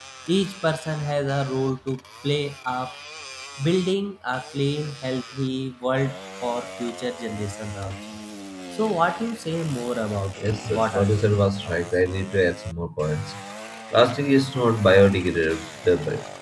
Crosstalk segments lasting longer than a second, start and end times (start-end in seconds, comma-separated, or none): 10.4-11.8